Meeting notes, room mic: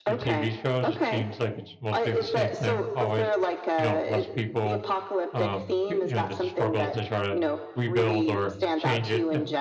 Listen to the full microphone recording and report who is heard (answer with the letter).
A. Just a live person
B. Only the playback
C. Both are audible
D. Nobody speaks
C